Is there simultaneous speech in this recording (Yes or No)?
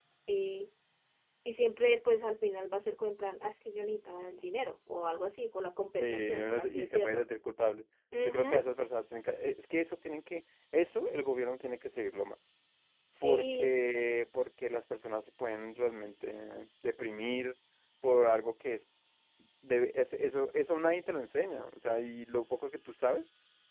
Yes